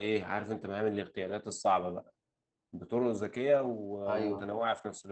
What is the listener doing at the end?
listening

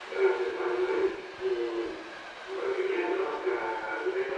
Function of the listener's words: taking over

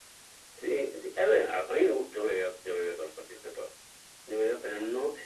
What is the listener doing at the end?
listening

